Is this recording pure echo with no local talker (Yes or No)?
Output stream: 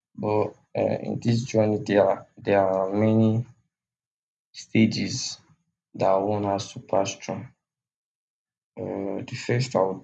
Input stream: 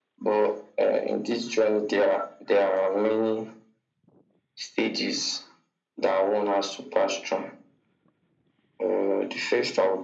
Yes